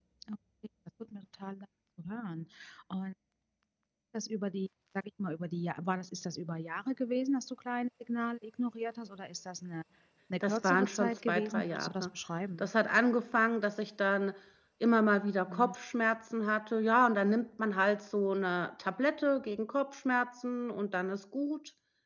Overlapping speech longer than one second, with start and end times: 10.4-12.1

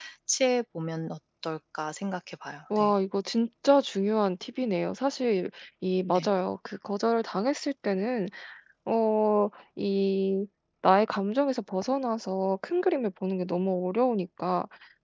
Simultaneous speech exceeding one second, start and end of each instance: none

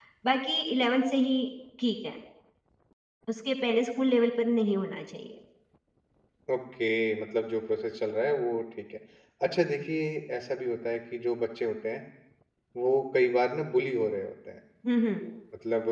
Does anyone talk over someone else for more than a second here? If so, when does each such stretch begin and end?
none

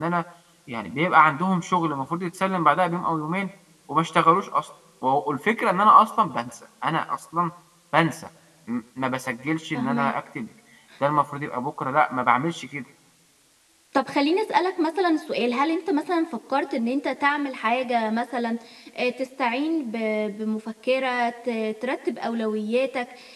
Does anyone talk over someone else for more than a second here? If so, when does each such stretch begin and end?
none

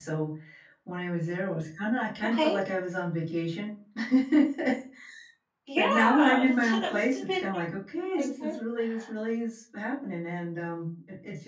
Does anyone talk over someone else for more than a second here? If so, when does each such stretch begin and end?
5.8-7.6

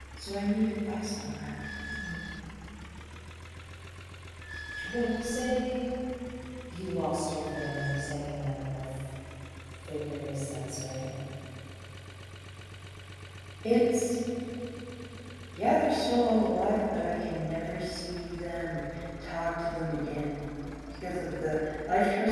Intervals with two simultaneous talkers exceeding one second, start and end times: none

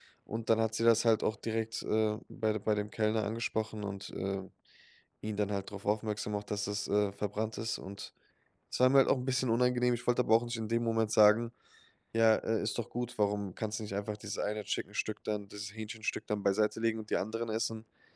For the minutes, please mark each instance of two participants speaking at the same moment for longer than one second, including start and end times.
none

